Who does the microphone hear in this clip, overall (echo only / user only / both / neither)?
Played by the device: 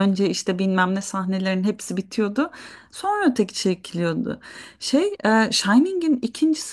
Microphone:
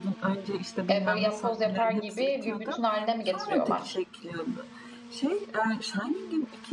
both